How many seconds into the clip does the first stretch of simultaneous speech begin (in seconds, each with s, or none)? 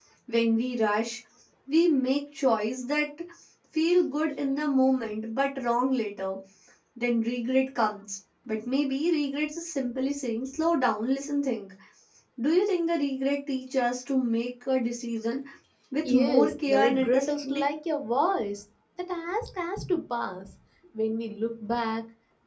16.1 s